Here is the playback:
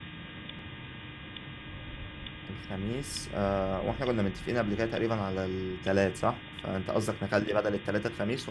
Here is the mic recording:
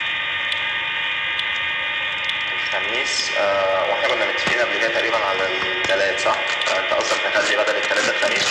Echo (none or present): present